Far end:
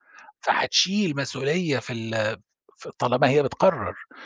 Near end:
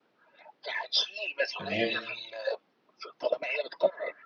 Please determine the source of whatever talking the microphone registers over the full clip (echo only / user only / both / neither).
both